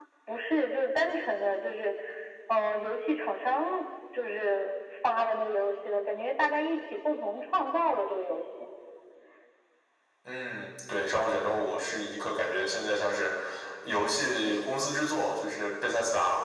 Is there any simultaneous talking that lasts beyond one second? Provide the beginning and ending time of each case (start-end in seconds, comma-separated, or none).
none